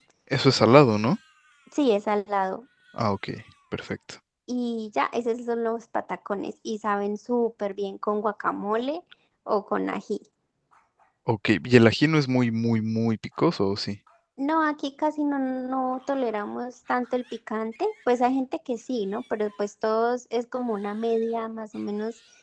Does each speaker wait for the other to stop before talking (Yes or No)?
Yes